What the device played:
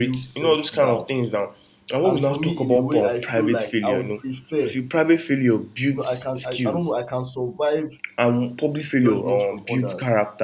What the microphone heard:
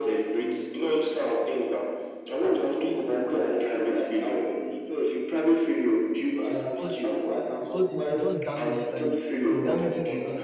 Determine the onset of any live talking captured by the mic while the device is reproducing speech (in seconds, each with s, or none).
6.5 s